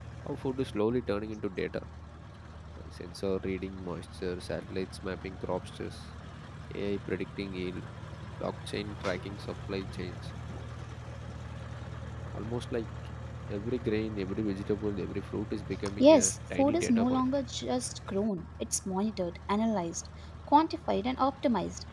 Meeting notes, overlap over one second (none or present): present